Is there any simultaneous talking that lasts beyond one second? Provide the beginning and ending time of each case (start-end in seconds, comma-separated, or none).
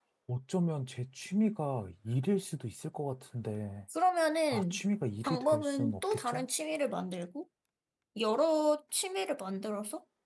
5.2-6.5